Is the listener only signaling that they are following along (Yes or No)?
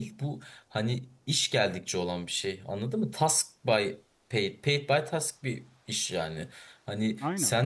Yes